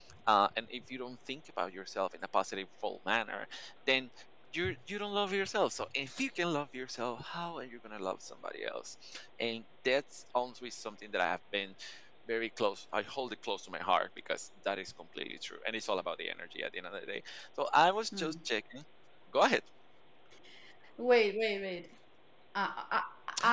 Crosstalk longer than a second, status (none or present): none